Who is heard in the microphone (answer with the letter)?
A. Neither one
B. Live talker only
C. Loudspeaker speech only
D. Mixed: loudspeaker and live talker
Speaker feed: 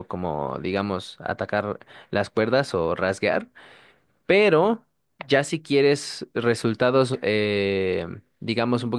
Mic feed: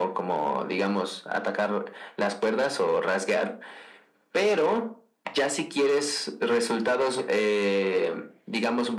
C